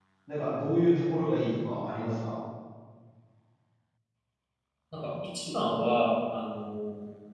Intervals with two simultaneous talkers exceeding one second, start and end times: none

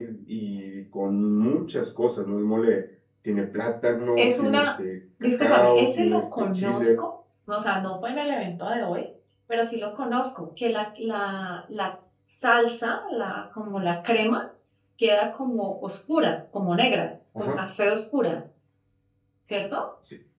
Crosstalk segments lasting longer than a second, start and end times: 5.2-6.9

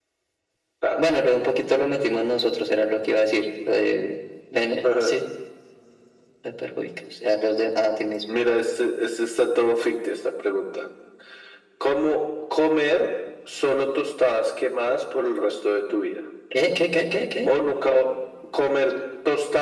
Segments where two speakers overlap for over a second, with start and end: none

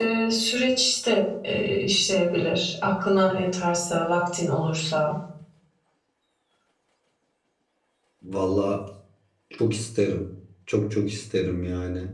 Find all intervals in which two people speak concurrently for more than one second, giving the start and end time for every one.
none

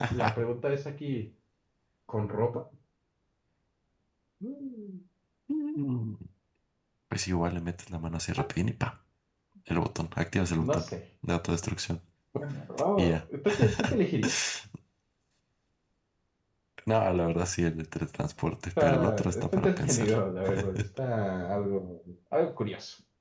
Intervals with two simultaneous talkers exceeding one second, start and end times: 18.8-20.1

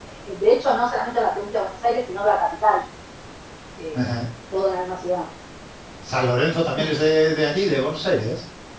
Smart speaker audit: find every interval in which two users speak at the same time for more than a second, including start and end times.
none

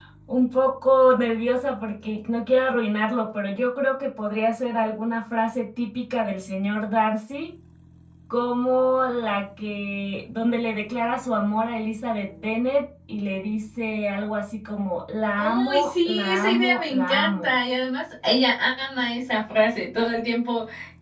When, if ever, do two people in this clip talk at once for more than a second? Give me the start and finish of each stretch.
15.4-17.5

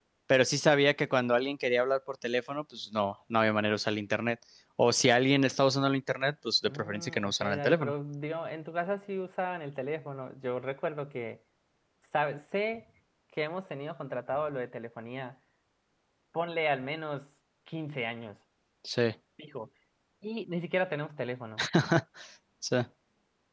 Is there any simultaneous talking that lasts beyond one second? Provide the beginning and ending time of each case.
6.6-7.9

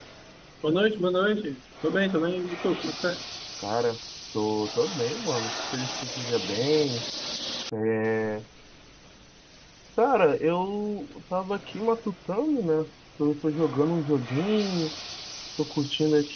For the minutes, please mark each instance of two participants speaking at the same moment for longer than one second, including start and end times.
none

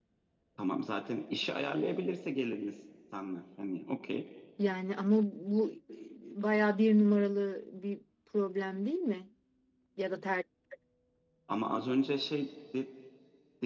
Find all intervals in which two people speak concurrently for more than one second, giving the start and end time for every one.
none

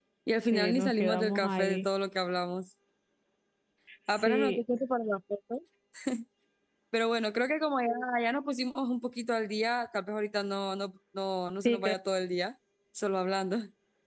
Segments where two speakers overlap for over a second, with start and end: 0.5-1.9

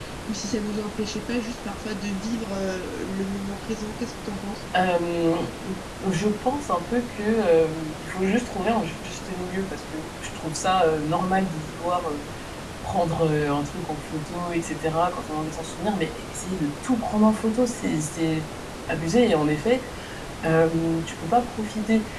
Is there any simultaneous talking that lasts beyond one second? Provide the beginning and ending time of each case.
none

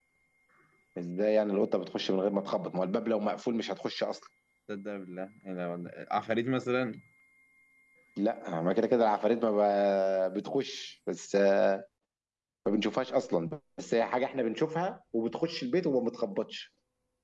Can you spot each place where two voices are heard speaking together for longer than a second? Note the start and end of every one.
none

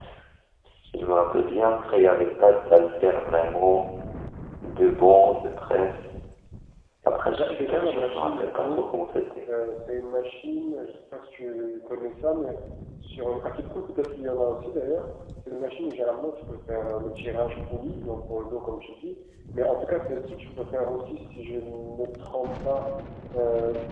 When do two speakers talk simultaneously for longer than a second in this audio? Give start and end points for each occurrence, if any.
7.4-8.9

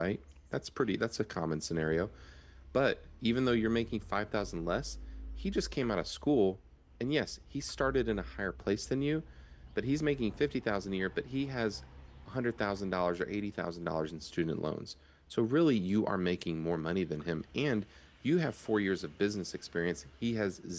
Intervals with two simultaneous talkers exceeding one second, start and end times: none

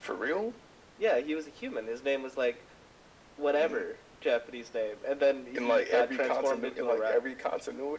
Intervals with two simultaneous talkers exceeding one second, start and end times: 5.5-7.2

